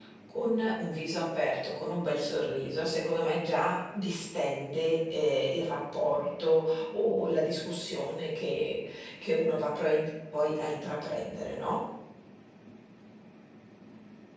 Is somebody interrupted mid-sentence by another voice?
No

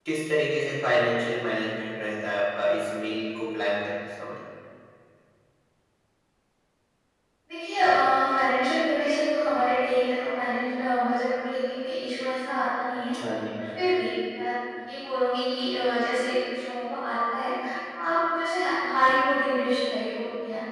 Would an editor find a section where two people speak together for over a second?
No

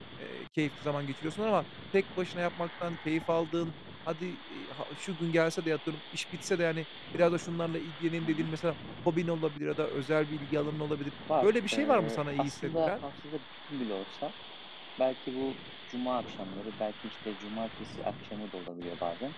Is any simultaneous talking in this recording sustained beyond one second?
Yes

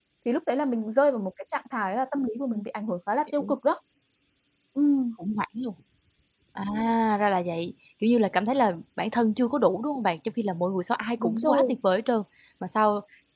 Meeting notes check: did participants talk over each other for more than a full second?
No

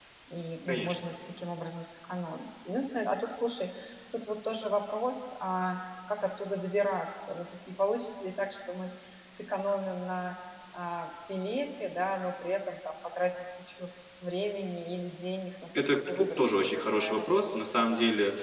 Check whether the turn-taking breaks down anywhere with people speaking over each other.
Yes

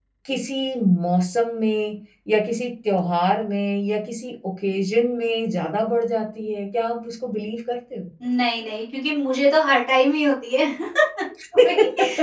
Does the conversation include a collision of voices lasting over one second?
No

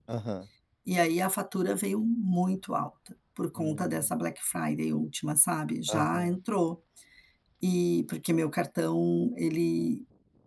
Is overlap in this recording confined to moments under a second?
Yes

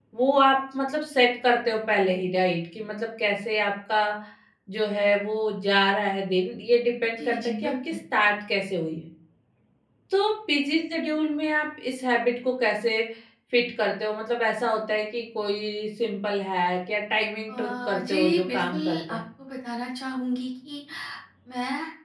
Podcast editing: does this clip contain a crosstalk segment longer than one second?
Yes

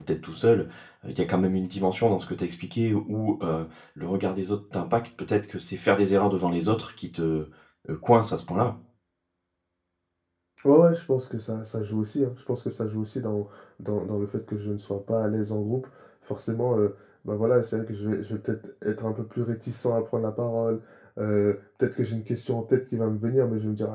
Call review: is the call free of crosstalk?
Yes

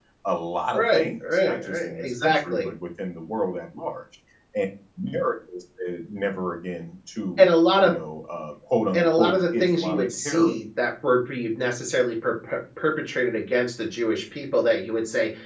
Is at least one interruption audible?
Yes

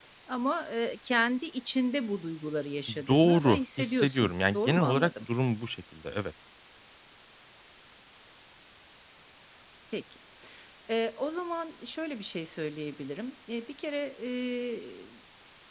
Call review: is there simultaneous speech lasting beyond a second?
Yes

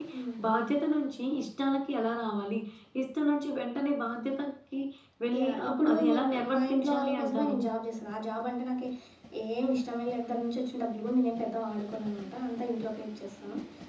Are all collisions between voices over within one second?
No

